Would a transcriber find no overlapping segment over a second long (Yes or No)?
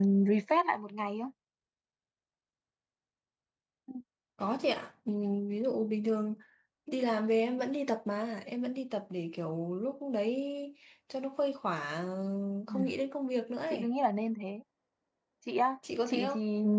Yes